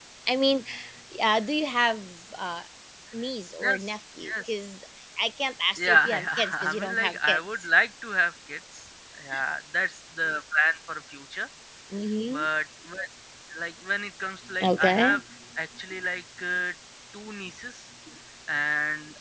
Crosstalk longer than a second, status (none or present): present